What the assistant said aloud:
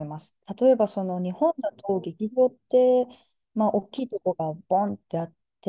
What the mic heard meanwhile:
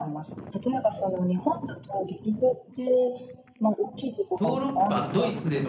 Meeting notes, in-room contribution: present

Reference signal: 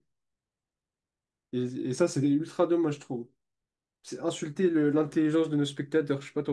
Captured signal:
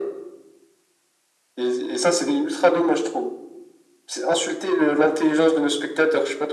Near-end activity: none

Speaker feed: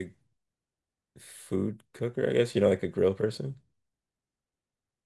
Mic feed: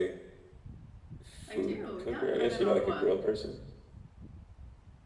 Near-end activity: present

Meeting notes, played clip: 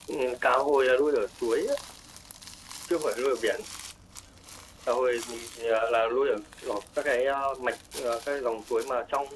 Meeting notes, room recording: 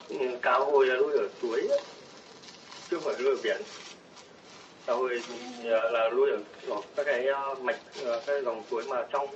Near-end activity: present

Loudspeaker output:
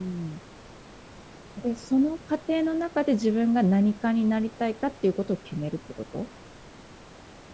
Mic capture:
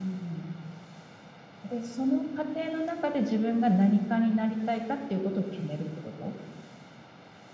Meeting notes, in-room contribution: none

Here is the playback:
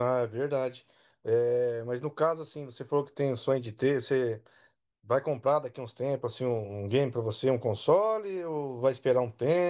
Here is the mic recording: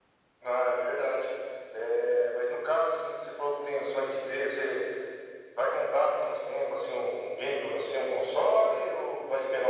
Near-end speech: none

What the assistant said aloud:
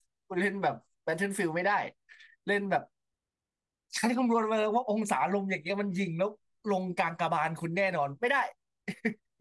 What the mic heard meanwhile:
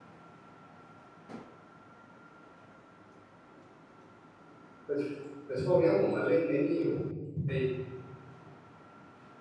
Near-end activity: present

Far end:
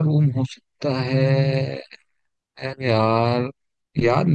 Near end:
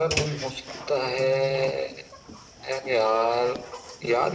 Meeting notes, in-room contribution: none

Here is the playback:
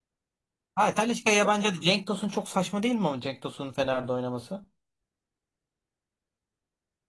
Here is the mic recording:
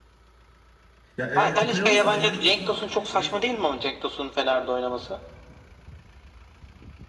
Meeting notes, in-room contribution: present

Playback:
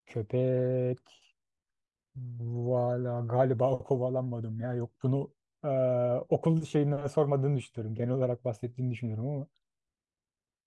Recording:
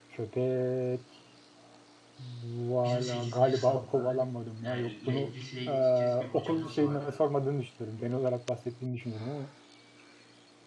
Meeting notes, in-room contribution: present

